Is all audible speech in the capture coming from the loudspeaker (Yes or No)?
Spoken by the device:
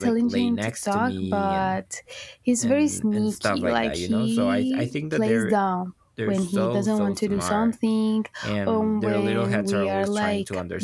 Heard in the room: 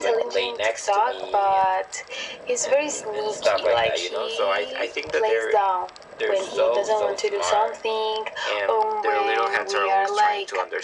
Yes